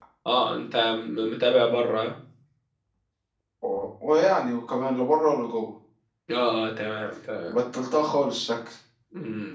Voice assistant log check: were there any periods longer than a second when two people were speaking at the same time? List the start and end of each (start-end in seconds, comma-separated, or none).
none